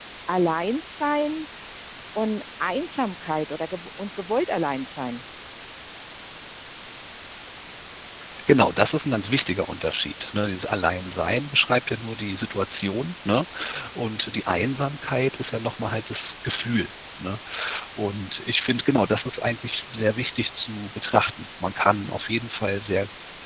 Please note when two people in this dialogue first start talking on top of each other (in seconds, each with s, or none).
none